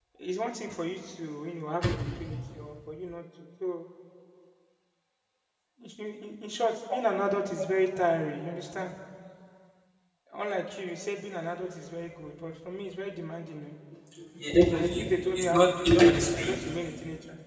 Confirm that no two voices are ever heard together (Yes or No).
No